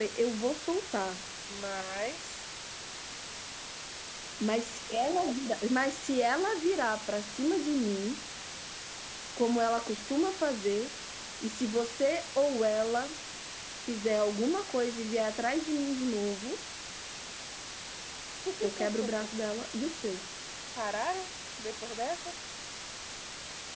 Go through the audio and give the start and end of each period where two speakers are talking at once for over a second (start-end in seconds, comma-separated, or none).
none